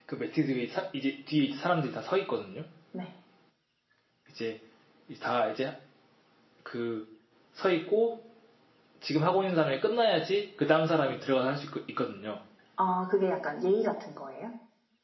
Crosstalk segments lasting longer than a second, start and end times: none

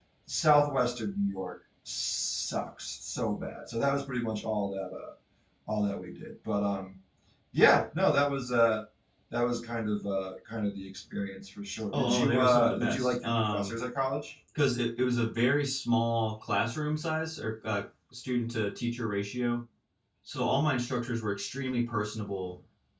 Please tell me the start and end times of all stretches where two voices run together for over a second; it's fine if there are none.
11.9-13.8

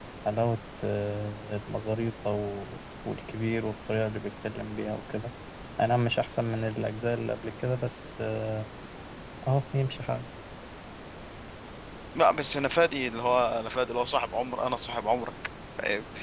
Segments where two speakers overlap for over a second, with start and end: none

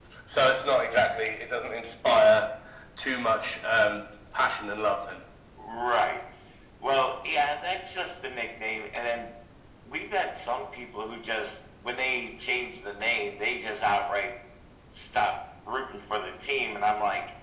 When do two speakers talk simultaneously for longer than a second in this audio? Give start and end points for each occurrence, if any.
none

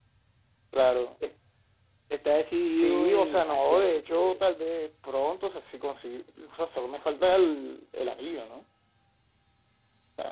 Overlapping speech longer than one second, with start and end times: 2.7-4.4

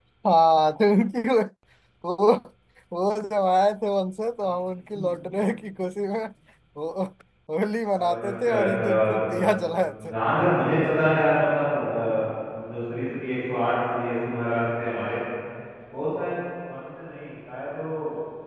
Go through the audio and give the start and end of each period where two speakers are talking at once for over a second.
7.9-9.2

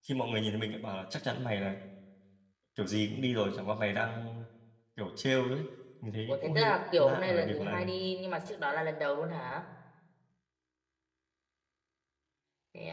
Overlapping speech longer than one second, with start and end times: 6.3-7.9

